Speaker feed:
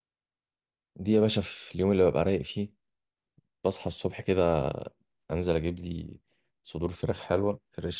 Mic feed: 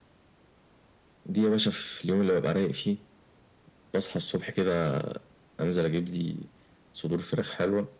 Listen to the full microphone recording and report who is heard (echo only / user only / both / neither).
echo only